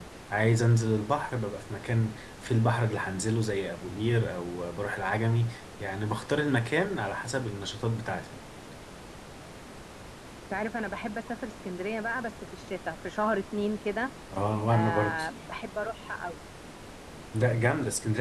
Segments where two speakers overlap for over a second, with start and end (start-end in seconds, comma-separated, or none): none